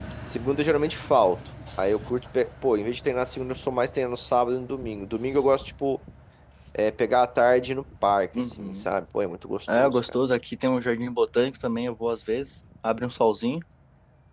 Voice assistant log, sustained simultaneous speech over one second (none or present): none